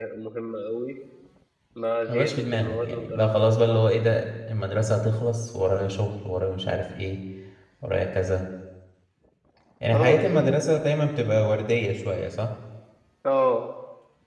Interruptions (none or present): present